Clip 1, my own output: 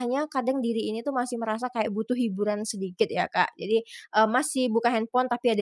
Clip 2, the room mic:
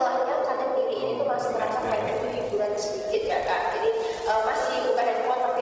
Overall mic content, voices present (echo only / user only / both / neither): both